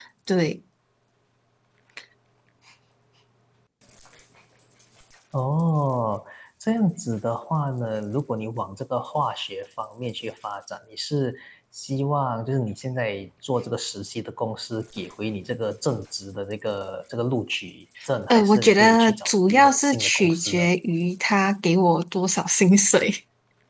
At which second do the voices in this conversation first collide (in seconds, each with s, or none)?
18.3 s